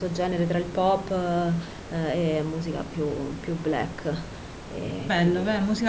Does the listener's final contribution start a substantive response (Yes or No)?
Yes